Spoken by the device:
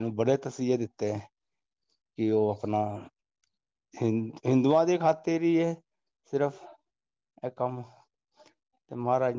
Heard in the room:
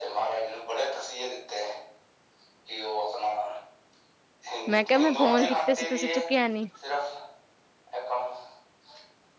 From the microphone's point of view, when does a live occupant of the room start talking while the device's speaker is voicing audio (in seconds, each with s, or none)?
4.7 s